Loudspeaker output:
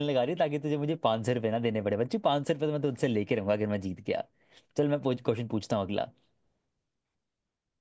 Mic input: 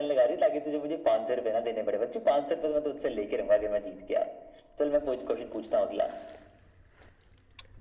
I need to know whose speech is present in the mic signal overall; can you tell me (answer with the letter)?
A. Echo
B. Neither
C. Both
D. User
A